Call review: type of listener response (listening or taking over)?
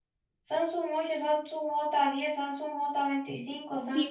taking over